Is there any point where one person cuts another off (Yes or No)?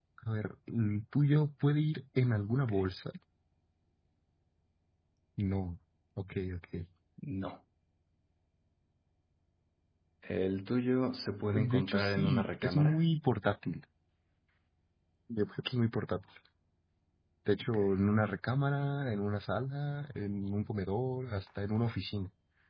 Yes